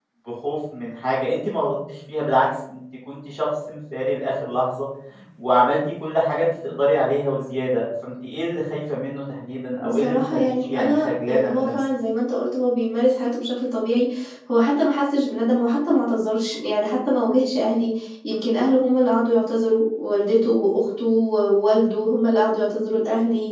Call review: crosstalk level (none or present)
present